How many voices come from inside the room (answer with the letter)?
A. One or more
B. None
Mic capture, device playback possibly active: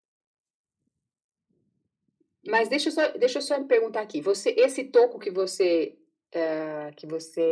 B